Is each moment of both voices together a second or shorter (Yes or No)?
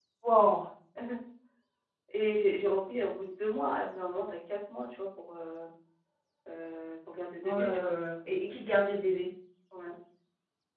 Yes